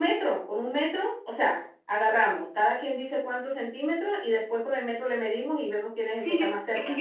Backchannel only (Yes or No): No